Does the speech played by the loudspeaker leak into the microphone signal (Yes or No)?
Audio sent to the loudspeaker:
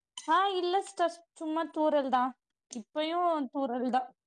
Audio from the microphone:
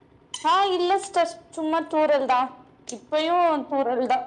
Yes